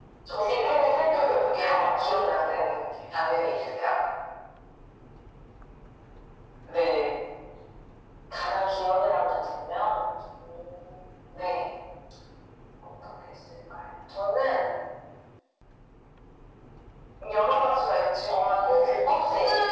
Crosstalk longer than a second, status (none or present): present